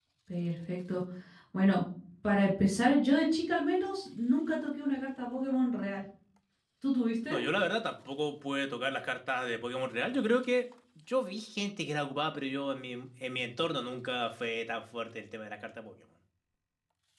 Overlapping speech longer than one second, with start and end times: none

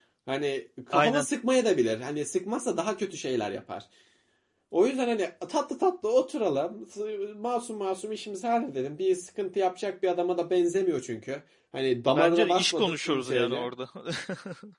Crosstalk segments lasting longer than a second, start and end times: 12.2-13.7

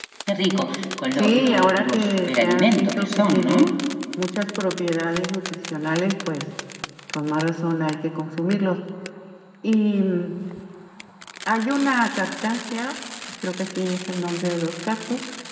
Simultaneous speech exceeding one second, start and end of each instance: 1.1-3.7

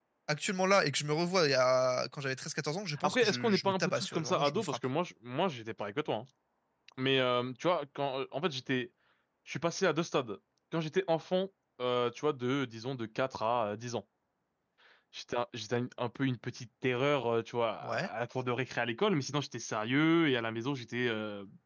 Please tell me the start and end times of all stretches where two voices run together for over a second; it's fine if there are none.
3.0-4.8

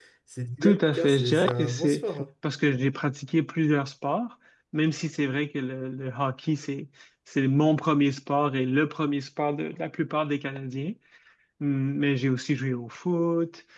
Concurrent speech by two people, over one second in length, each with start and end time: 0.6-2.0

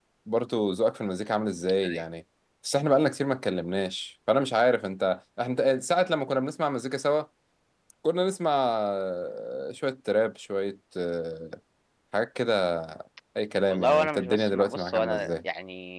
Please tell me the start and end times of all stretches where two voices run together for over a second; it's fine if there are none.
13.7-15.3

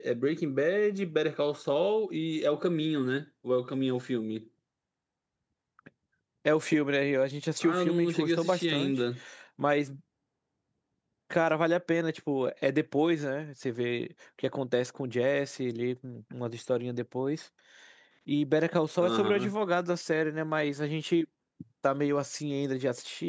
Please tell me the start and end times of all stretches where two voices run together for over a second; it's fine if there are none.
7.6-8.9

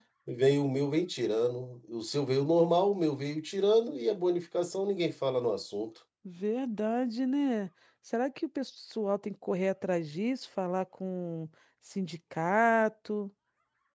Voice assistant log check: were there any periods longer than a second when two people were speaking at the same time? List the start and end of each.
none

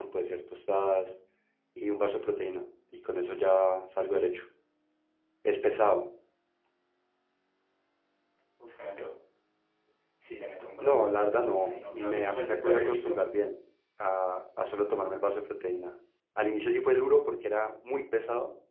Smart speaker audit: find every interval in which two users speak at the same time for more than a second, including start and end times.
10.8-13.2

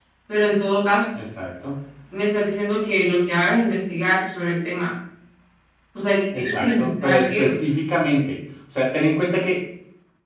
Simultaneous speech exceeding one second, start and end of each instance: 6.3-7.5

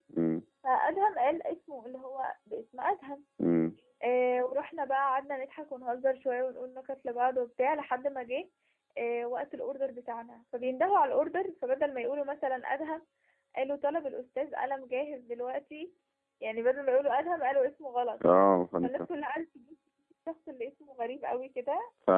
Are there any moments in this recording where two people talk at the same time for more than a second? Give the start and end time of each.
none

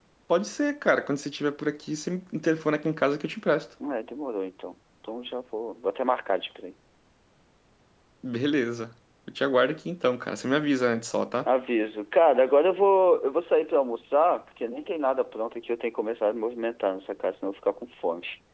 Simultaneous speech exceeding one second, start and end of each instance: none

